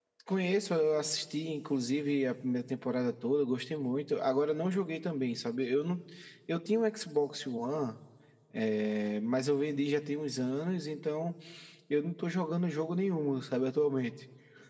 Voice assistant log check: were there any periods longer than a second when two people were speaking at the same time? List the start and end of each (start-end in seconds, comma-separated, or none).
none